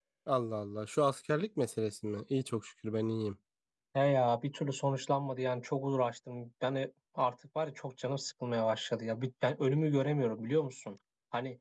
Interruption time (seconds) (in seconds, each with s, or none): none